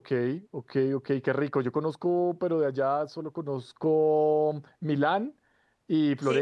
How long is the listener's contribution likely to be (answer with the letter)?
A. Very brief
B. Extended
A